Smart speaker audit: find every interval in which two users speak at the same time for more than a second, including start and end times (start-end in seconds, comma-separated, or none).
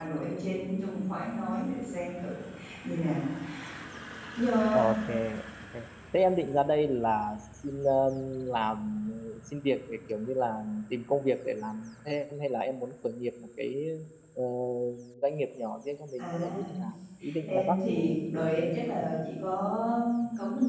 17.5-18.7